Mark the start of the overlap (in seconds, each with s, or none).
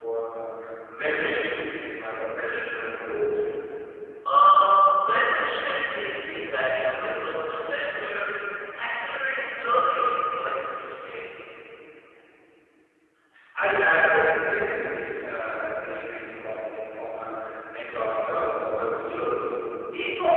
none